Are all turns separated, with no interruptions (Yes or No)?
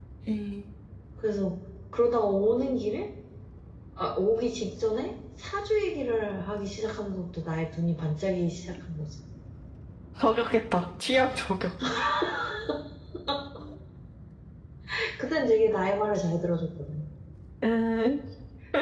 Yes